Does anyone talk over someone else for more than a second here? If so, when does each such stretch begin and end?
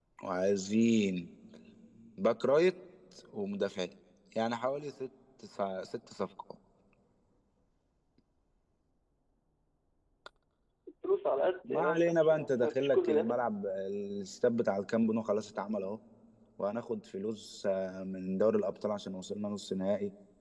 11.6-13.4

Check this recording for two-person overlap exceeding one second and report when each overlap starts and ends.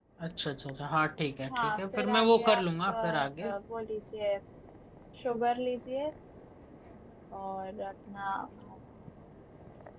1.5-3.5

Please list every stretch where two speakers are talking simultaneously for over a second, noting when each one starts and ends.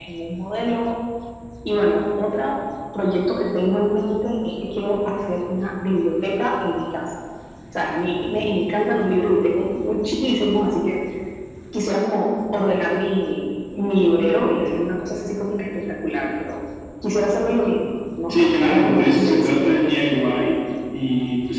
18.3-19.6

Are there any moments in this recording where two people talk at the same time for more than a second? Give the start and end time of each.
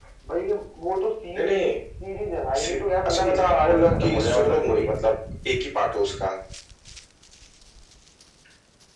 2.6-4.9

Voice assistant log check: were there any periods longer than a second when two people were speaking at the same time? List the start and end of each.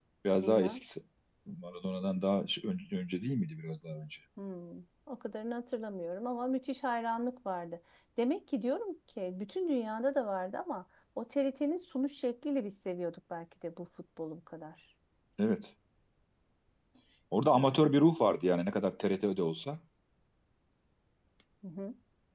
none

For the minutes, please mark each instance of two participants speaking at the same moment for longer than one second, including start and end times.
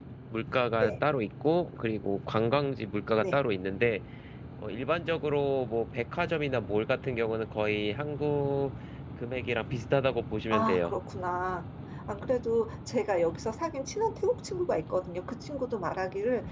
none

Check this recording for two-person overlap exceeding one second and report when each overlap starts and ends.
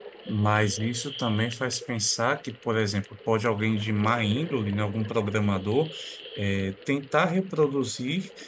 none

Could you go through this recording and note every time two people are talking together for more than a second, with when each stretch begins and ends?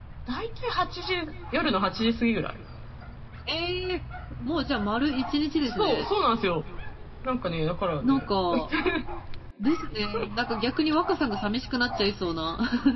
none

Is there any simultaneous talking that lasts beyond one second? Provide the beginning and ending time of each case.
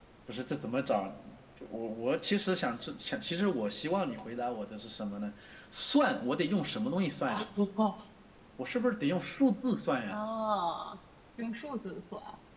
none

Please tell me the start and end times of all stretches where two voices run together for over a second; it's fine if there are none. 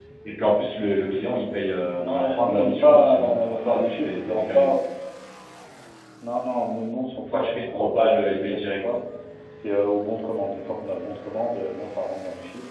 2.0-4.7, 7.3-9.0

